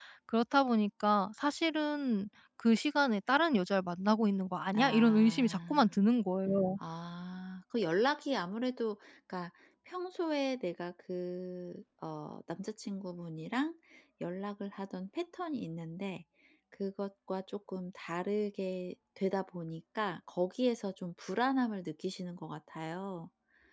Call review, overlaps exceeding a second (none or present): present